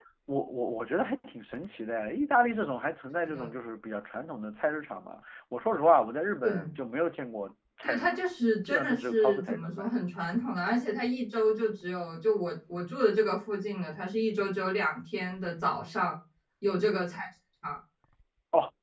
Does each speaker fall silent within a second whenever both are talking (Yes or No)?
No